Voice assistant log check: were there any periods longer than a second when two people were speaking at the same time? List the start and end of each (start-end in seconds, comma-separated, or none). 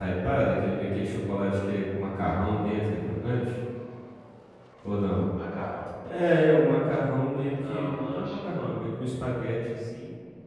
7.4-8.8